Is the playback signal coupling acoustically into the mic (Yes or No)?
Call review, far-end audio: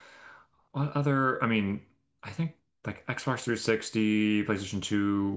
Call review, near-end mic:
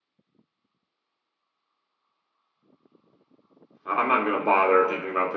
No